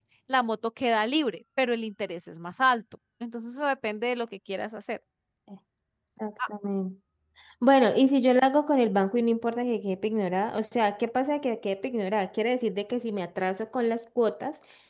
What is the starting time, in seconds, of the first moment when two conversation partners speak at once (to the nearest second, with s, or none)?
none